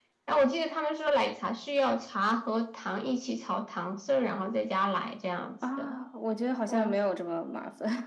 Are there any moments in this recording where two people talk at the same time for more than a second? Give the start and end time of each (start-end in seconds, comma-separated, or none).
none